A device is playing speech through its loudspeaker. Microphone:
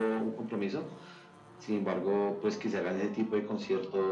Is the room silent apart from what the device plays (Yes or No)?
Yes